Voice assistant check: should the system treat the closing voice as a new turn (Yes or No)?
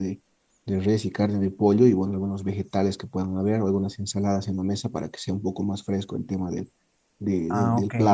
Yes